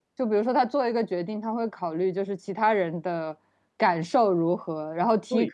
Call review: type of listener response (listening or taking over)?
listening